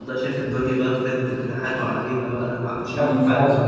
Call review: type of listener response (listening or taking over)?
taking over